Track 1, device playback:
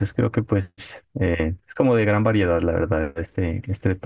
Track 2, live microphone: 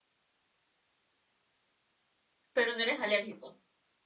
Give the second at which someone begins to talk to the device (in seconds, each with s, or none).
2.5 s